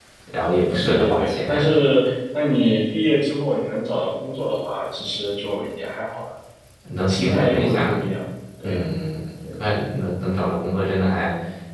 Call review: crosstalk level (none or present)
present